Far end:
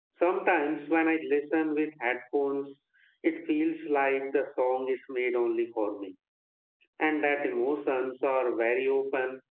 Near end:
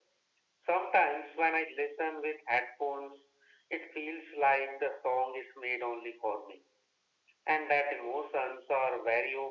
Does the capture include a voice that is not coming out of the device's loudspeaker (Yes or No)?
No